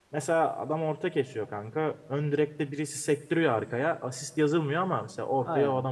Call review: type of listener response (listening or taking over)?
taking over